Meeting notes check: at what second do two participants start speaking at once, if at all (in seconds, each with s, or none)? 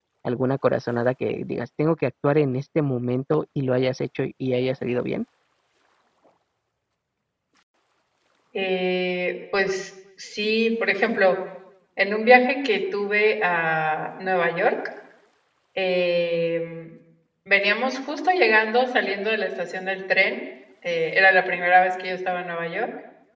none